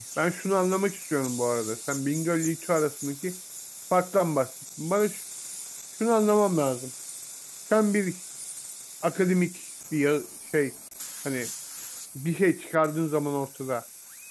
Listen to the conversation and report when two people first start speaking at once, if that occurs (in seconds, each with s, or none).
none